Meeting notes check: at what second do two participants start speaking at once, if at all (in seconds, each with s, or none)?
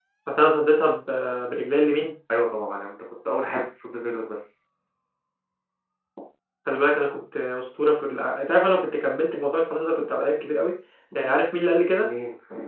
none